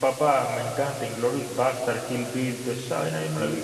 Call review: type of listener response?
taking over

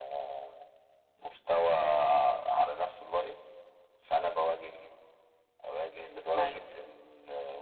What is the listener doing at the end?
listening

